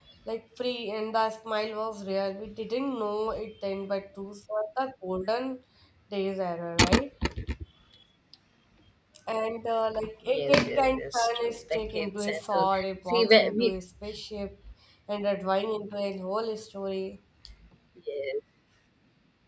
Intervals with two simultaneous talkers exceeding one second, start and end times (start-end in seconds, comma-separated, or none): 10.3-13.8